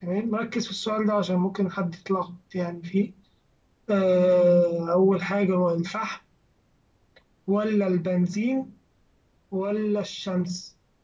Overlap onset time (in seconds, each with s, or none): none